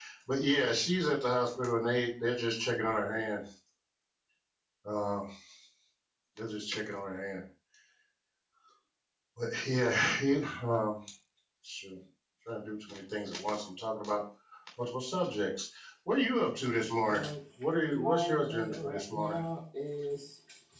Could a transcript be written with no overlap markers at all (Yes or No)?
No